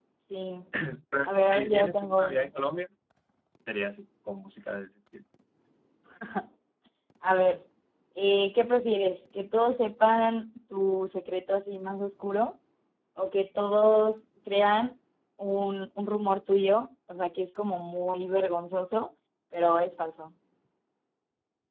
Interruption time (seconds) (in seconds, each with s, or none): 1.2 s